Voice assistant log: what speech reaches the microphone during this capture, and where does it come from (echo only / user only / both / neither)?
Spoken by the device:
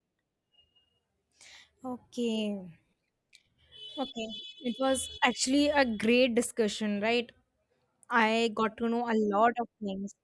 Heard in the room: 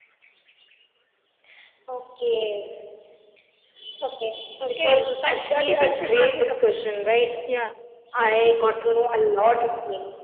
both